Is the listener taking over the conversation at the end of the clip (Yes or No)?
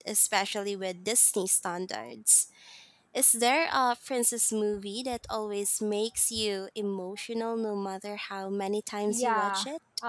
Yes